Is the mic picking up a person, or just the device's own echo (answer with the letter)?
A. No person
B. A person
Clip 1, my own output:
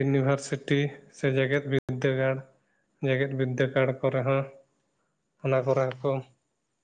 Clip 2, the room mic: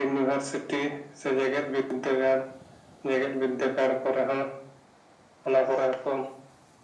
A